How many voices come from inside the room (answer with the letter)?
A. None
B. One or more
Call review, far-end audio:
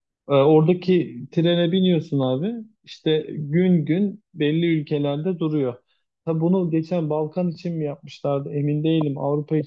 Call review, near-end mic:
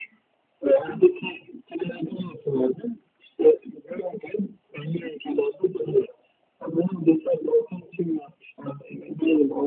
A